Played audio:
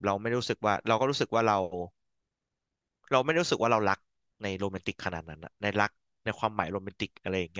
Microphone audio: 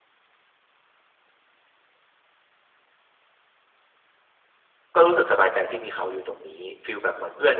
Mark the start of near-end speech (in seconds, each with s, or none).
4.9 s